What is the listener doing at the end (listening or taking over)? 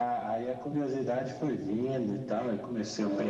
taking over